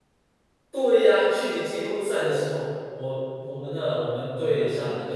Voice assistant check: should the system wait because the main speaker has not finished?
Yes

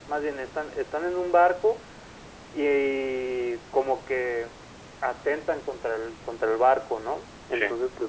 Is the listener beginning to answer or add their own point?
No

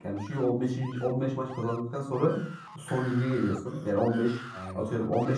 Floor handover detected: No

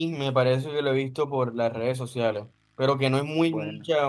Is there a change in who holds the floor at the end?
No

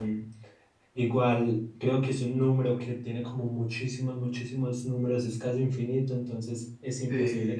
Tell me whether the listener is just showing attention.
Yes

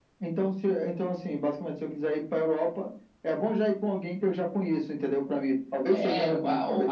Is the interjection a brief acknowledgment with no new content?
No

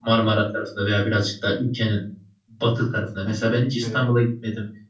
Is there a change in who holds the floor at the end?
No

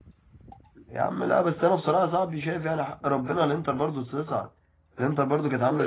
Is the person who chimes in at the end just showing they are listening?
No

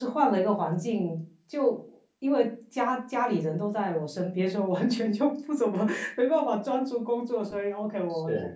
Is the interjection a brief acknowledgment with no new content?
Yes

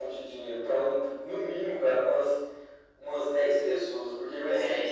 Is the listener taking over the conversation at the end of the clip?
Yes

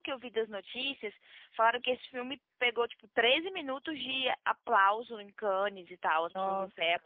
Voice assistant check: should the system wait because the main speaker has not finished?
Yes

